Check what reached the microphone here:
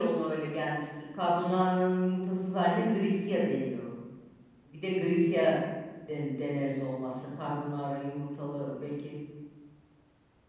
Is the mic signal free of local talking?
Yes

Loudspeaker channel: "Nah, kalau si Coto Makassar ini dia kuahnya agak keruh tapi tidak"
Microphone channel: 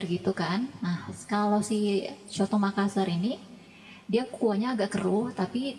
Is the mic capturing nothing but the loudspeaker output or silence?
Yes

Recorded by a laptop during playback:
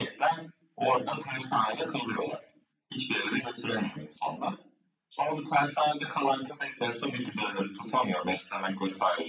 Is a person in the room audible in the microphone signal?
No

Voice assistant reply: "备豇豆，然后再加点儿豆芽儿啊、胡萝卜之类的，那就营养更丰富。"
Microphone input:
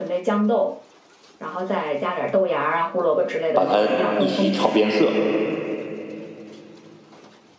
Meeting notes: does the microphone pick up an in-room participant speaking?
Yes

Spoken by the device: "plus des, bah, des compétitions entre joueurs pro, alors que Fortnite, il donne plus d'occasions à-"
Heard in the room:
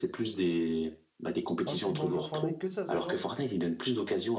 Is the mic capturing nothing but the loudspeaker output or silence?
No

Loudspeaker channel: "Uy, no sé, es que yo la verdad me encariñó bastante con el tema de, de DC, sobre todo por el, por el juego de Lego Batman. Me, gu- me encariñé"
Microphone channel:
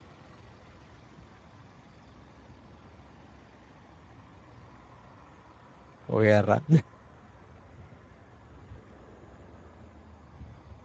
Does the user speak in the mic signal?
Yes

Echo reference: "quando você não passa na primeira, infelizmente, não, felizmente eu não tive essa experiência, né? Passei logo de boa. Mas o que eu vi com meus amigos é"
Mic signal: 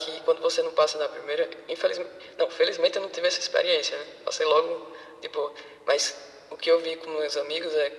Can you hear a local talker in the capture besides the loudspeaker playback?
No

